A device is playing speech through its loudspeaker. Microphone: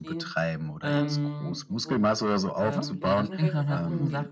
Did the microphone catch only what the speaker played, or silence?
No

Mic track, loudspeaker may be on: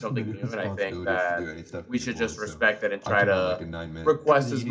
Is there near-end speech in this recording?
Yes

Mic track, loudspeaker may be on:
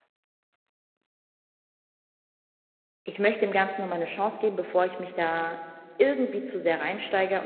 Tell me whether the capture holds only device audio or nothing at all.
No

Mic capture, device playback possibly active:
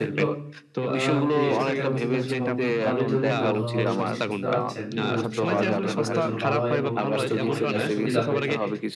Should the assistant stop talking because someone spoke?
Yes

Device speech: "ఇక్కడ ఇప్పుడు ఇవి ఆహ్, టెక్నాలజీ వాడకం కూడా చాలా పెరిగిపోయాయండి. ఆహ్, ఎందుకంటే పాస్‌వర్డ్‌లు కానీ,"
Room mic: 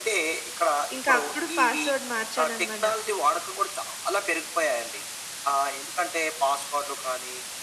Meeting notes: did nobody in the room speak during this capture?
No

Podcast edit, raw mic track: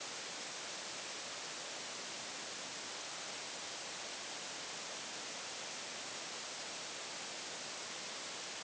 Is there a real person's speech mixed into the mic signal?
No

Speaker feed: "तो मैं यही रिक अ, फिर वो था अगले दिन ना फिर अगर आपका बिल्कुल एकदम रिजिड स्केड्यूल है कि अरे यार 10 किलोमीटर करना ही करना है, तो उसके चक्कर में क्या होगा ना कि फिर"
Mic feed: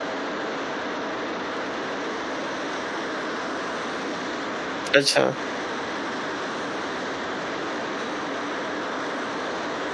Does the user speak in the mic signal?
Yes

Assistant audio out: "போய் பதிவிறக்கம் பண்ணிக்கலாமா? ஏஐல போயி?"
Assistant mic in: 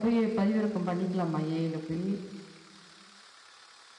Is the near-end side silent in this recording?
Yes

